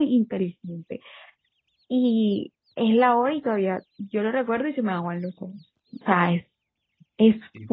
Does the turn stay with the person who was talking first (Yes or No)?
No